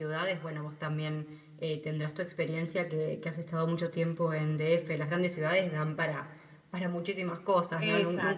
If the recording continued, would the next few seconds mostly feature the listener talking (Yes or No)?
Yes